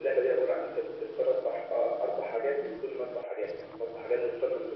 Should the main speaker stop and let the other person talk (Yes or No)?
No